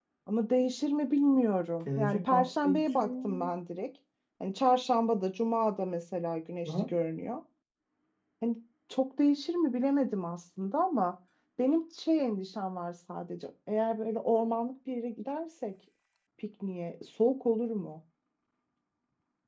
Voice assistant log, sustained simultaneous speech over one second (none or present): present